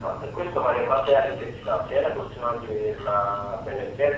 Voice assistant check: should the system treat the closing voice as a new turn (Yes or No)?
No